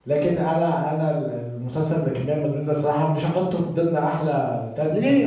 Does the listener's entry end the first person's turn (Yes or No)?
Yes